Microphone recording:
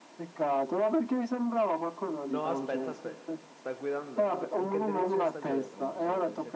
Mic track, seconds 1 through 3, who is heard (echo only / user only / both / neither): both